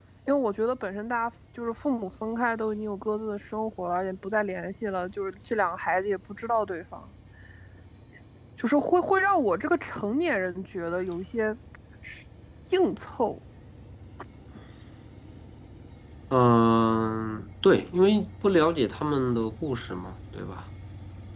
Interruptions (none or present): none